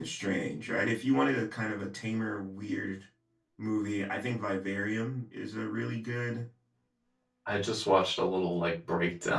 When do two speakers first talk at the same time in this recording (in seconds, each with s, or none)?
none